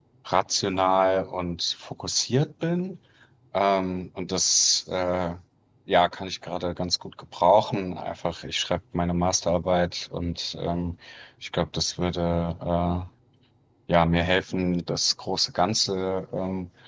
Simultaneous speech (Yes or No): No